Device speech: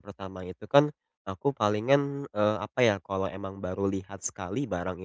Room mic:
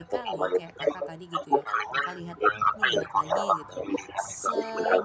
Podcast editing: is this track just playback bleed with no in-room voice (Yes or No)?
No